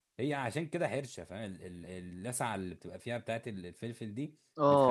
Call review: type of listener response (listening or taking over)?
taking over